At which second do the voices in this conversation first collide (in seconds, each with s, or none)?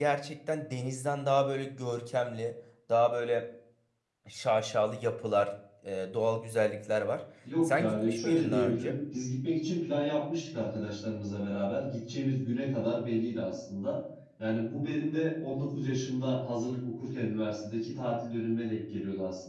7.6 s